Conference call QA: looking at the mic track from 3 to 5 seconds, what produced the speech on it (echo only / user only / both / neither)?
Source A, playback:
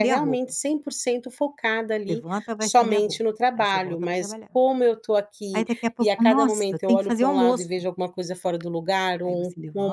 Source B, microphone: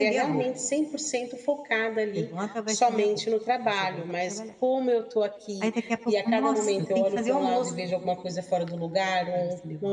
echo only